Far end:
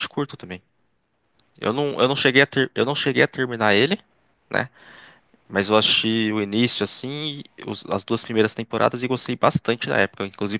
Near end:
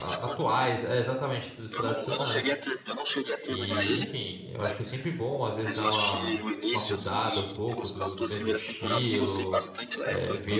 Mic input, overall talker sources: both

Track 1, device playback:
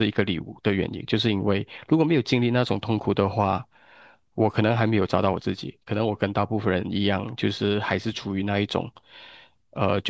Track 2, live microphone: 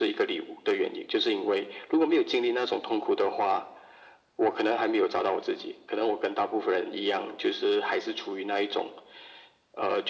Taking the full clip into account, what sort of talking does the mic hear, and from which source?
echo only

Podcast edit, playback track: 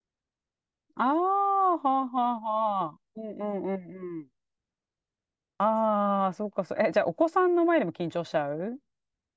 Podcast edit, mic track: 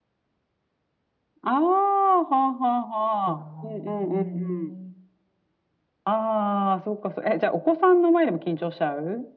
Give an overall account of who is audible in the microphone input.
both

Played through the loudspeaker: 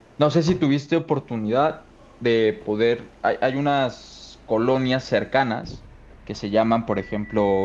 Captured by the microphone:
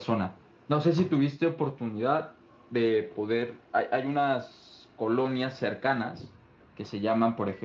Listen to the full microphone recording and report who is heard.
echo only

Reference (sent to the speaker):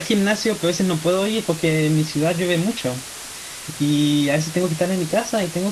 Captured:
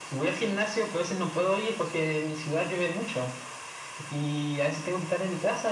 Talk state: echo only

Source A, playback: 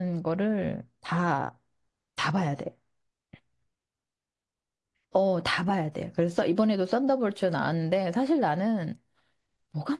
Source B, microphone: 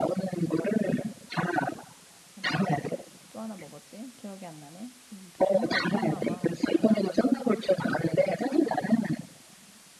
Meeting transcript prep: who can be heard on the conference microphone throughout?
both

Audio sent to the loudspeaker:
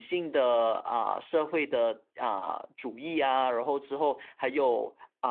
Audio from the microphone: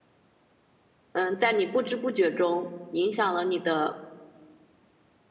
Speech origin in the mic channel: user only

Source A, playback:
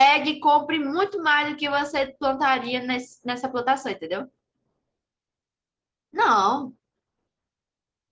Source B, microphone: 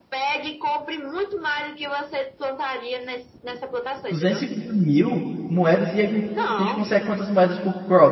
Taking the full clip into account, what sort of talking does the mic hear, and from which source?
both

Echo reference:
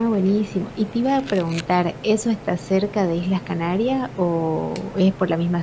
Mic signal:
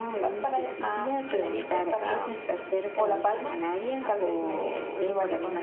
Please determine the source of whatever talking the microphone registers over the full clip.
both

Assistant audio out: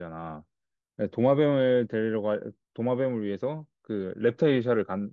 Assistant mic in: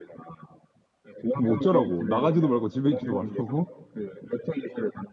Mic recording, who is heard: both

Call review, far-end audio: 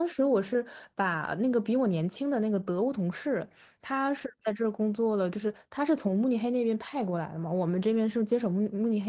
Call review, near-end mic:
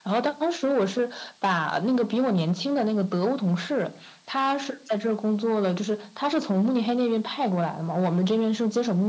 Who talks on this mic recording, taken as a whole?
echo only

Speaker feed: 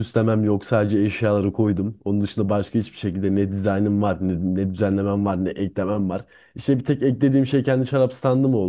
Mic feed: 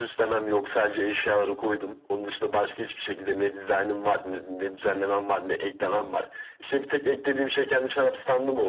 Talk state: echo only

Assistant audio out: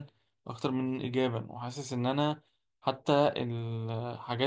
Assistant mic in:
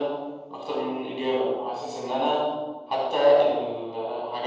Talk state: echo only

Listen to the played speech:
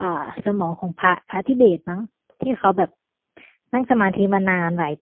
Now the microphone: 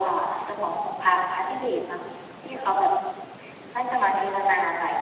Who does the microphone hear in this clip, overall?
echo only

